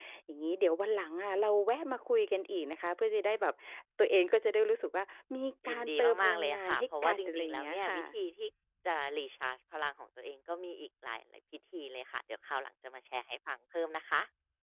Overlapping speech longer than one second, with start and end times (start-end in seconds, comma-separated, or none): 5.7-8.0